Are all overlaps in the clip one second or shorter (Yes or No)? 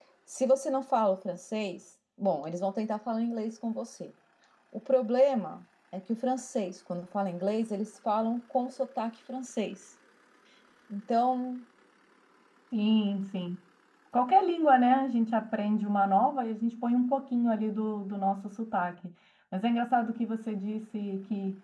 Yes